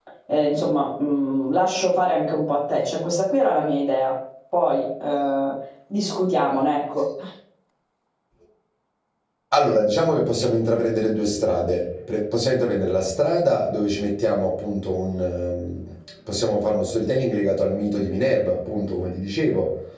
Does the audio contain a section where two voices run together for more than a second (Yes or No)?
No